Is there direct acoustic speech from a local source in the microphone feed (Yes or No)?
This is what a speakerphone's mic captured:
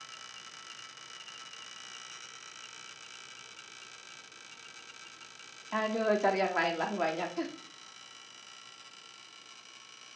Yes